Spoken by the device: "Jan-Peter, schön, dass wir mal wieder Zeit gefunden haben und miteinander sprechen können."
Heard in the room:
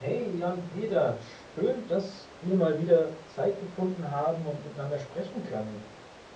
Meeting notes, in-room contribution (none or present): none